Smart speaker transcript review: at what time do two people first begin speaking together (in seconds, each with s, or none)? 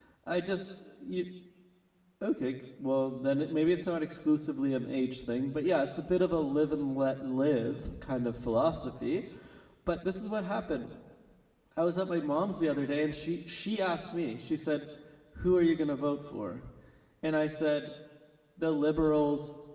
none